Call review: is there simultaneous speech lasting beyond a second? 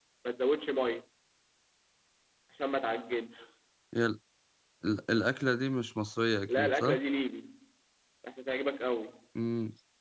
No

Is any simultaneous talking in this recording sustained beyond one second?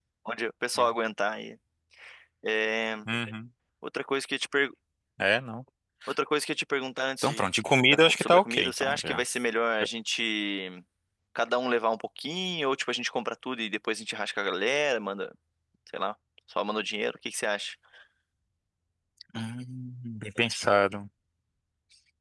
Yes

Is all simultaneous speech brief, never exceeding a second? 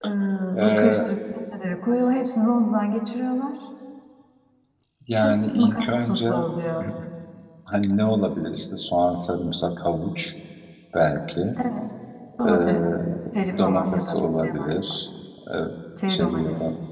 No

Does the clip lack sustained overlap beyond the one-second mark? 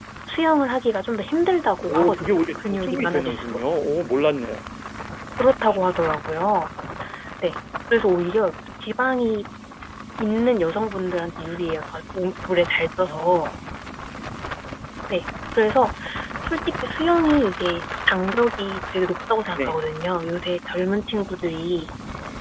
No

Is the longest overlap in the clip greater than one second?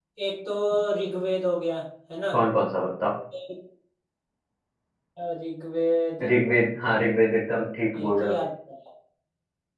No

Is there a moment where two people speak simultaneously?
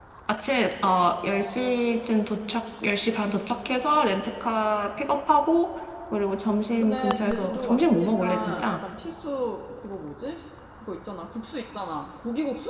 Yes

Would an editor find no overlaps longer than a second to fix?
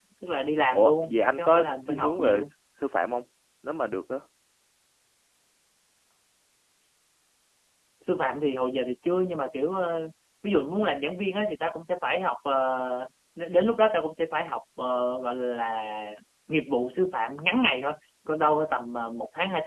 No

